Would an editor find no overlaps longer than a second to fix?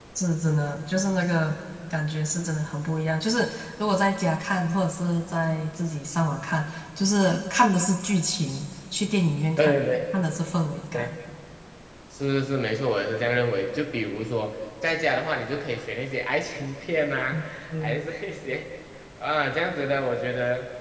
Yes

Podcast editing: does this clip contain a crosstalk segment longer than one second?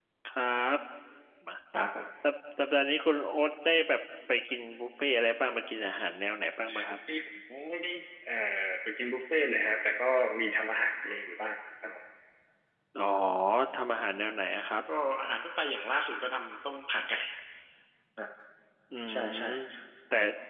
No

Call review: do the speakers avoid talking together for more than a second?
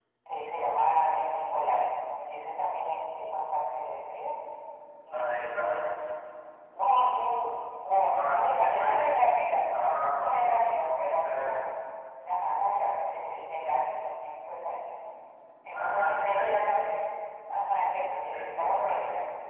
No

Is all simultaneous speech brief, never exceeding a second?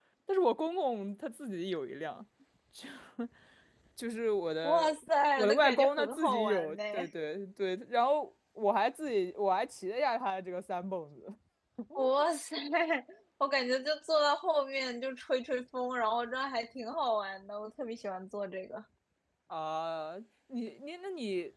No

